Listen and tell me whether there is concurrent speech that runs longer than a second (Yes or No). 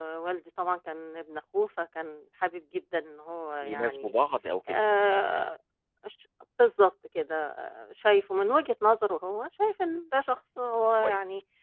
No